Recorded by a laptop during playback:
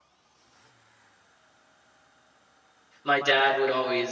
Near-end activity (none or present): present